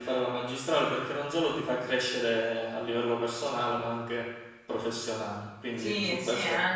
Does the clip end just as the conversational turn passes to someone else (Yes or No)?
Yes